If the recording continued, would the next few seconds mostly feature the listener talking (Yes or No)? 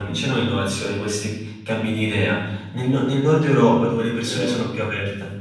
No